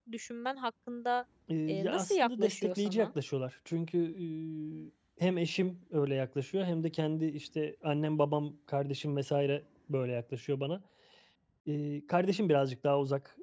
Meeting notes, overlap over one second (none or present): present